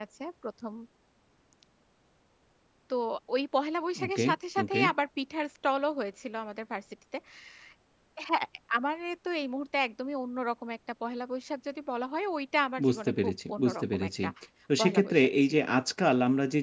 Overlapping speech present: Yes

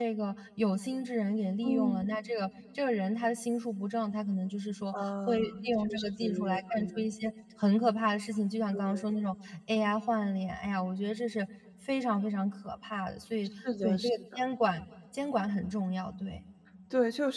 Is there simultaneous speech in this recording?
Yes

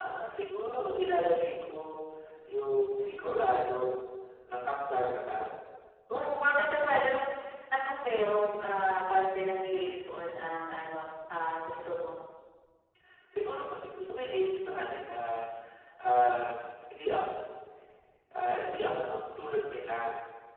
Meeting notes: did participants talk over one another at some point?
No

